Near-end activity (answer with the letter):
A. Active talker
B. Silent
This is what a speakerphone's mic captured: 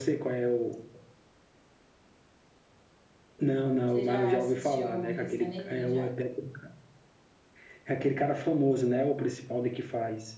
A